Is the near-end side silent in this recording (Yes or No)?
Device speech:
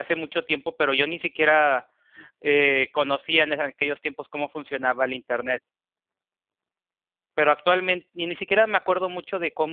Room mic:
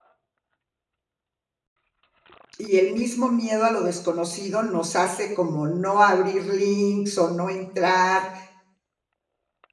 No